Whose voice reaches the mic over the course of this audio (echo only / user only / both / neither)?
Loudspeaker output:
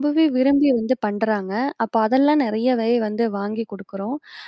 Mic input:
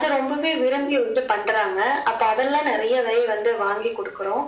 echo only